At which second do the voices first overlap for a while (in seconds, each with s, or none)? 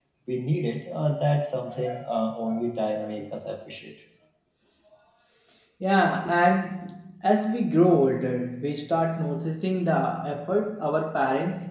none